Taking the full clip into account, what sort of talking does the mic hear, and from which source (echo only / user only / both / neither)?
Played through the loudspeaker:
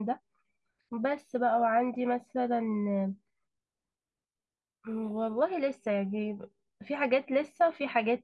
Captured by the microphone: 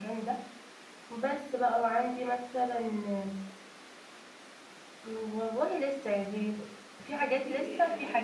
both